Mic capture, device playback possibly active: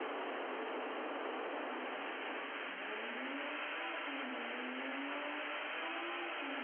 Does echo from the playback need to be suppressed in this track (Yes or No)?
No